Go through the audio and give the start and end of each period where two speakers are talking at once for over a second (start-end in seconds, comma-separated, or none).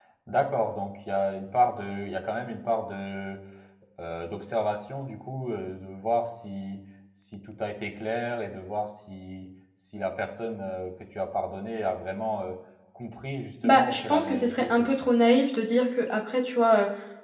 13.6-15.1